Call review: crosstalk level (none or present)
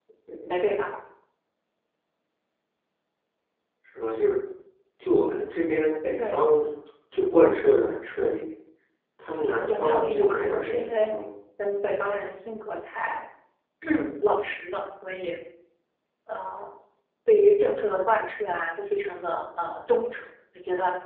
present